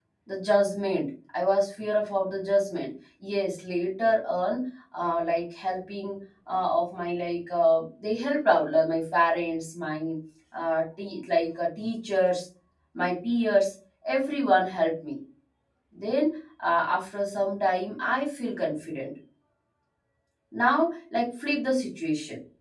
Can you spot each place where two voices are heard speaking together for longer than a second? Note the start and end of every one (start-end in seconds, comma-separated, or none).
none